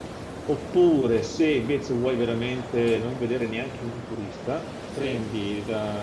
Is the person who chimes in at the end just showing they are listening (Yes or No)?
Yes